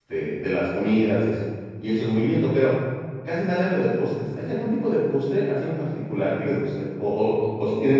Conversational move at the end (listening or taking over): listening